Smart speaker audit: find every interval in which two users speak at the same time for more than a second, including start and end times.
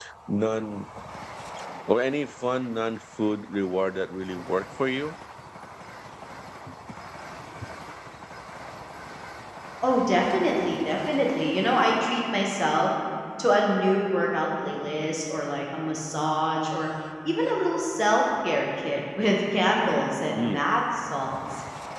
none

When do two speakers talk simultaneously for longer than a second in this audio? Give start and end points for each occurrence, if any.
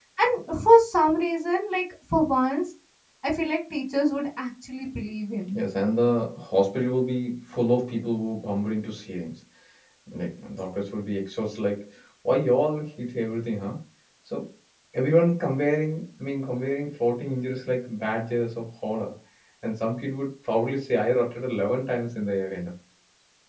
none

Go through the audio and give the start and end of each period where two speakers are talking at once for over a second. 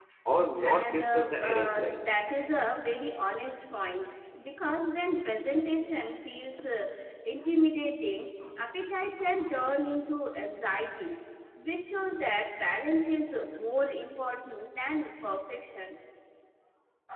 0.6-2.0

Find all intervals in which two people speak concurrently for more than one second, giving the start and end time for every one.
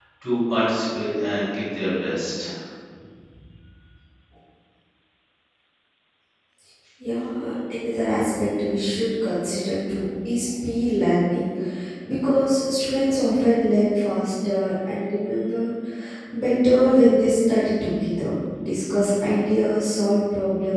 none

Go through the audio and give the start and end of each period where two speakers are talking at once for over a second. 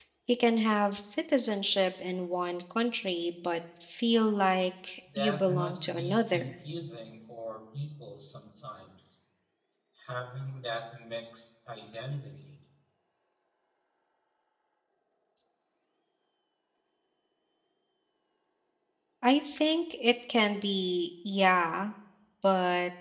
5.2-6.5

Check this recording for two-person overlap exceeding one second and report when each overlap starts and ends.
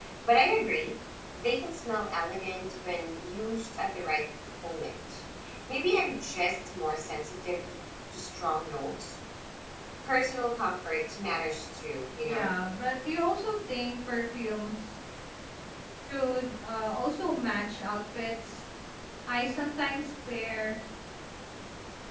none

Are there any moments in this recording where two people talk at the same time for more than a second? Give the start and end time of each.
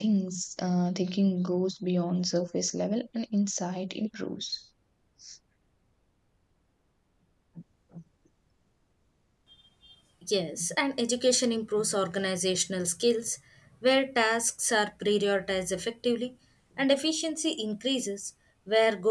none

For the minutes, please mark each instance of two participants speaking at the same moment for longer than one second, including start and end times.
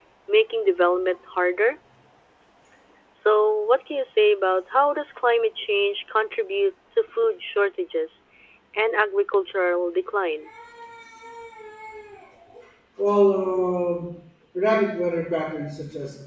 none

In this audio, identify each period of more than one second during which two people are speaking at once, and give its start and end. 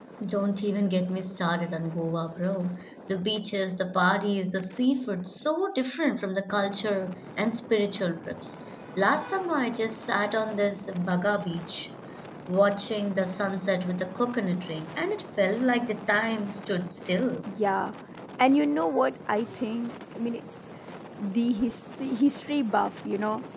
none

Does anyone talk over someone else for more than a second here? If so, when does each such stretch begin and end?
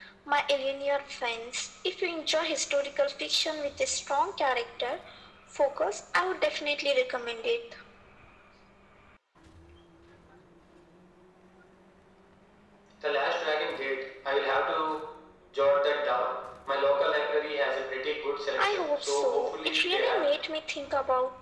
18.6-20.3

